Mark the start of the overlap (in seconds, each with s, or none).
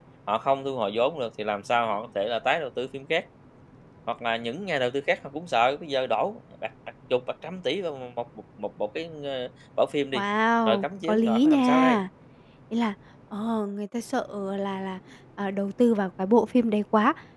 10.7 s